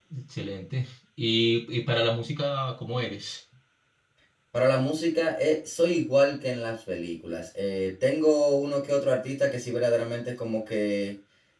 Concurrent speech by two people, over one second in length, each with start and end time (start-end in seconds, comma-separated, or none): none